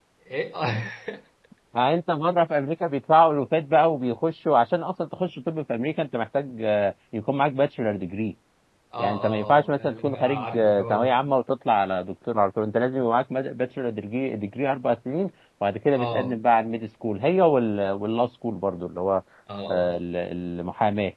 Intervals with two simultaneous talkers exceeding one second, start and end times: 9.0-11.2

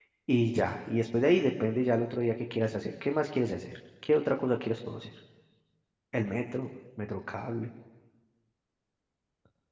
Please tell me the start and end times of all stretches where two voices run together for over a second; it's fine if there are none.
none

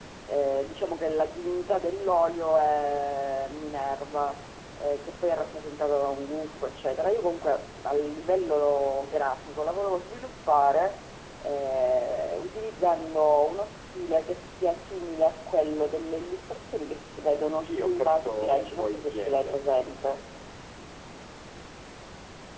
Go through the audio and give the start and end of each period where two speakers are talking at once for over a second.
17.6-19.6

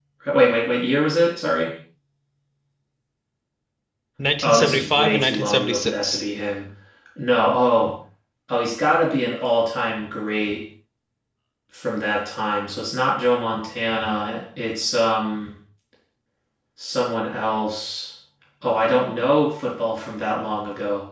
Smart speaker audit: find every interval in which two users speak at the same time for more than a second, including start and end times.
4.4-6.2

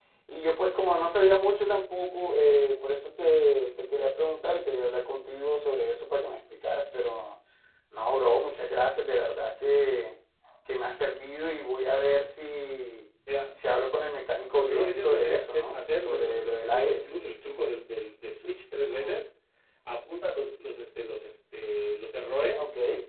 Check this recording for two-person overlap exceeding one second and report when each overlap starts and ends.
14.6-17.1

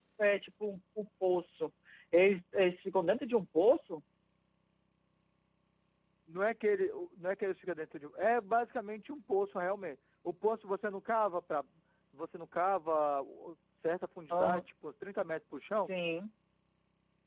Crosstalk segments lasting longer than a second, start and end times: none

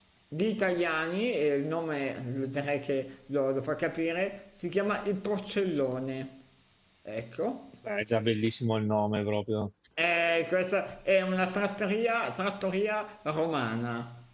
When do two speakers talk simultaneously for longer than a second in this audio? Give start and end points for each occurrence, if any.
none

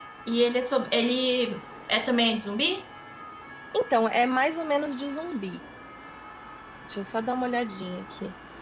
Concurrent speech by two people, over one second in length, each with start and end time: none

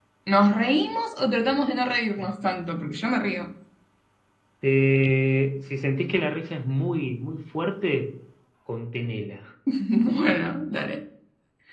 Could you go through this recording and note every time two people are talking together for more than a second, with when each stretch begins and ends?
none

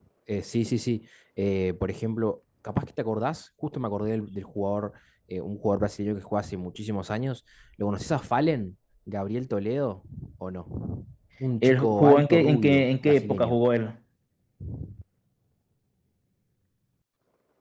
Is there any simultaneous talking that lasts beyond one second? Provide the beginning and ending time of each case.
11.6-13.6

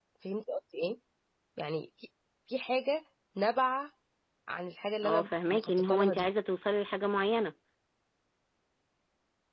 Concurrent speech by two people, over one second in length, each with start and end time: 5.0-6.2

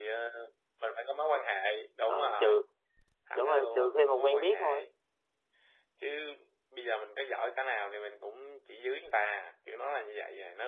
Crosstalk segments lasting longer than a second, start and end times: 3.4-4.8

